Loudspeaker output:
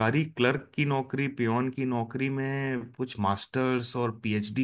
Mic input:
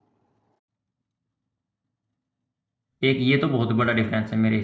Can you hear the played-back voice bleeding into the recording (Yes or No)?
No